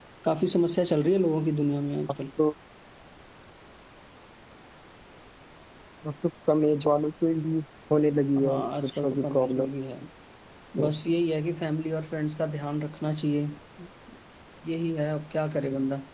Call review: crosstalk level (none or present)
present